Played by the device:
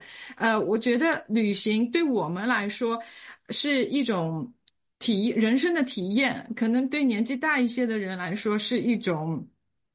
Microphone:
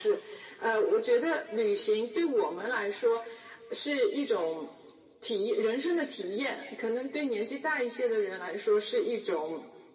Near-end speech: none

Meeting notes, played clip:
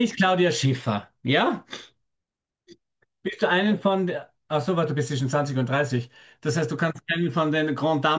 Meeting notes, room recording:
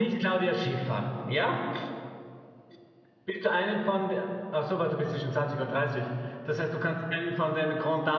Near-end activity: none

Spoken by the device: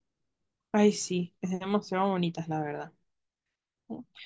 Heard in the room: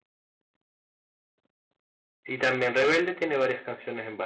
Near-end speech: present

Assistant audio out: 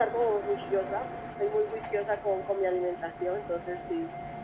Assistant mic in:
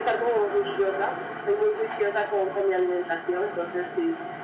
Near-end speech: none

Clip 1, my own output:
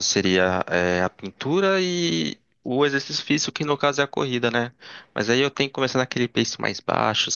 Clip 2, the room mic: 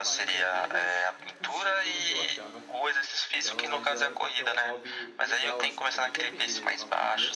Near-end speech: present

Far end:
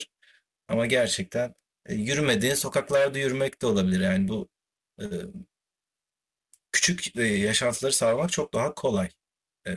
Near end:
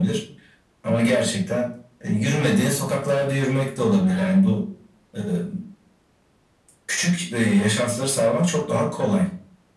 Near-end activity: none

